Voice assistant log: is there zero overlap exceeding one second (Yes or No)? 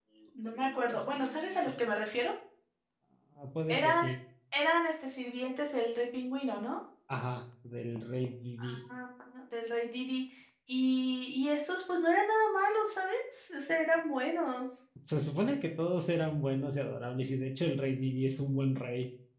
No